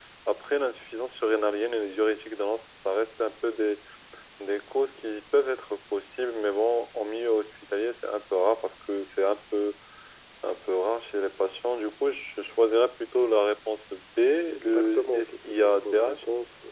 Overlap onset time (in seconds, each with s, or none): 14.5 s